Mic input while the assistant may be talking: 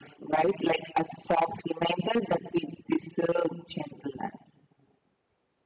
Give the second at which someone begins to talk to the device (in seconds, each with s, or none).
none